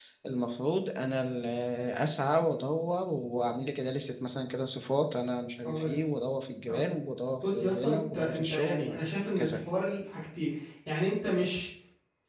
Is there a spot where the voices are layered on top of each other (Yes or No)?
Yes